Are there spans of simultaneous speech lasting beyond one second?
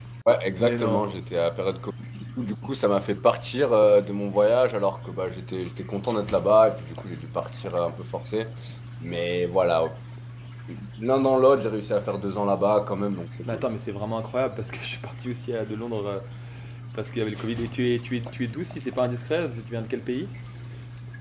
No

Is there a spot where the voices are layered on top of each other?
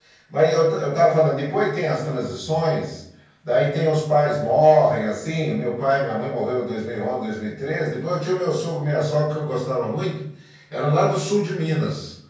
No

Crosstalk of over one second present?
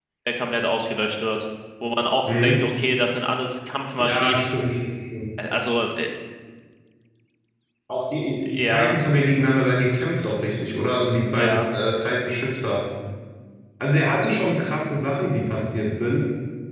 No

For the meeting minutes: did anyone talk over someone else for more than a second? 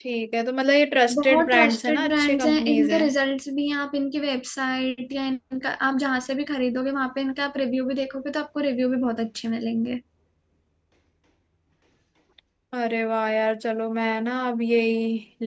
Yes, from 1.2 s

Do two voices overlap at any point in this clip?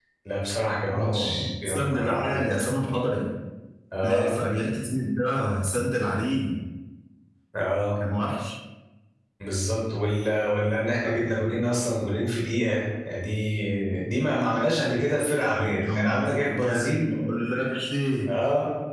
Yes, from 0.9 s

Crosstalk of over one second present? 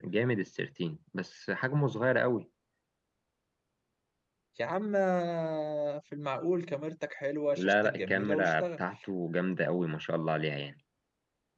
Yes, from 7.6 s

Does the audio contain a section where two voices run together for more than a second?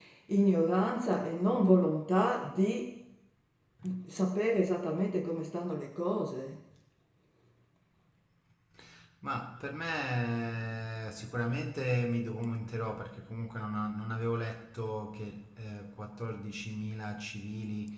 No

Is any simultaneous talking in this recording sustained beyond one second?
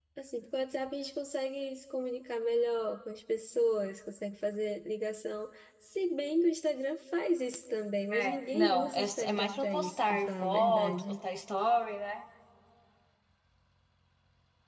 Yes, from 8.1 s

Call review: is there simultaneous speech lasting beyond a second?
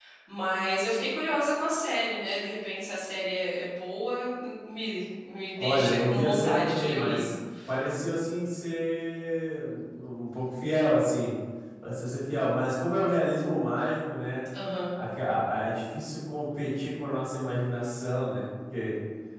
Yes, from 5.6 s

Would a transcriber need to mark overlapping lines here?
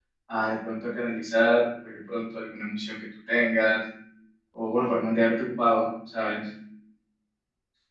No

